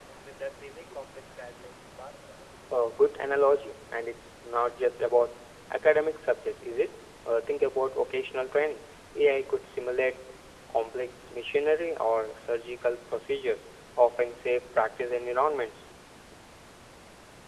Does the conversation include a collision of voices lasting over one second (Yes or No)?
No